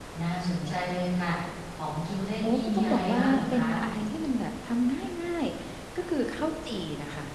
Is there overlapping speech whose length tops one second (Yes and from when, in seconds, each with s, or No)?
Yes, from 2.4 s